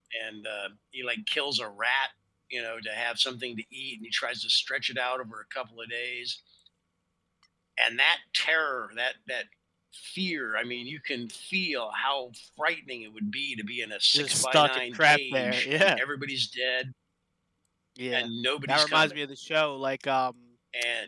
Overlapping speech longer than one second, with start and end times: 14.1-16.0

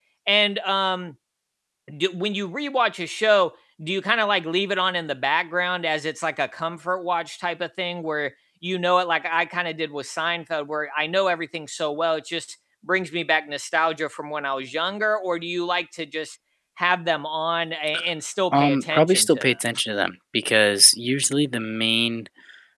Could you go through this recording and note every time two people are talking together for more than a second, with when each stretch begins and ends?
18.5-19.8

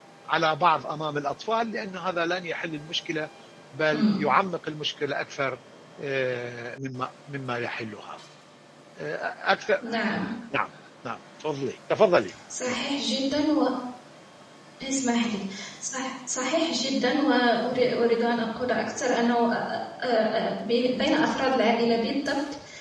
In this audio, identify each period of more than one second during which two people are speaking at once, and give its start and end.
none

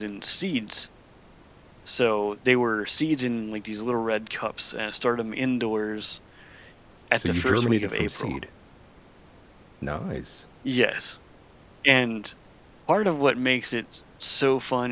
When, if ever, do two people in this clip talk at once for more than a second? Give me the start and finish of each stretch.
7.2-8.4

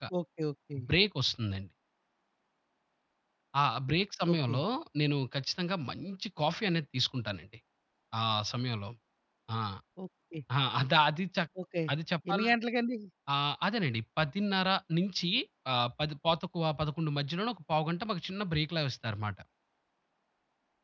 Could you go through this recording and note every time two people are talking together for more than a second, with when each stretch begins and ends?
none

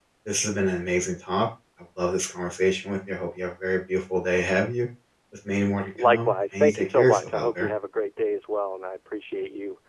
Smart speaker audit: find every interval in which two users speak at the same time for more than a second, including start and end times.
6.0-7.7

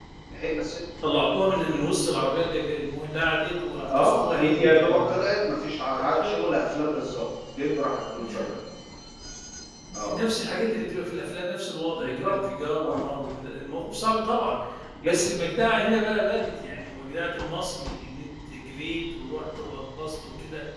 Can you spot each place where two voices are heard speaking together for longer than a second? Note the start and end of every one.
3.8-5.2

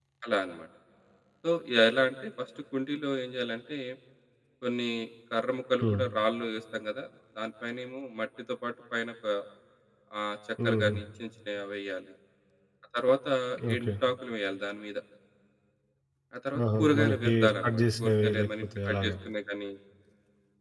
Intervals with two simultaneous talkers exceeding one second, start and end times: 16.8-19.1

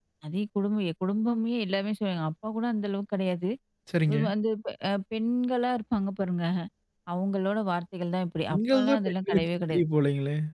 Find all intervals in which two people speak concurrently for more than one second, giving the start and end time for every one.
8.5-9.8

